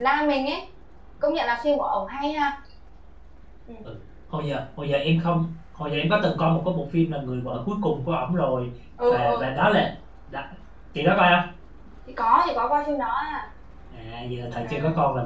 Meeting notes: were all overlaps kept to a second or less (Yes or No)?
Yes